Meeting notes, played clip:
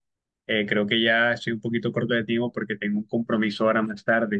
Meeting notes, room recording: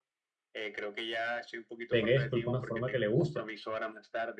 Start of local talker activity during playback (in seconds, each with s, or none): 1.9 s